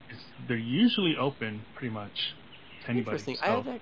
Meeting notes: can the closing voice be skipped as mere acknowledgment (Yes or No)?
No